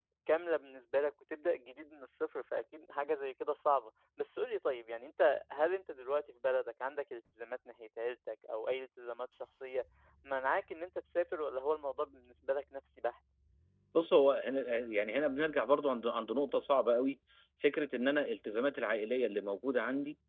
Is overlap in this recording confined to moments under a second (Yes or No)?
Yes